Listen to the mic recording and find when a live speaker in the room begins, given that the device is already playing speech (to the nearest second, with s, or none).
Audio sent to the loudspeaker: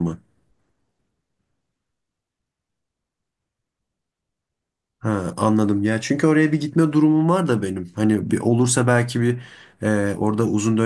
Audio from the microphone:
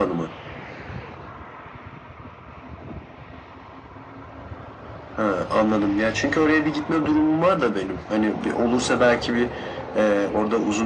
none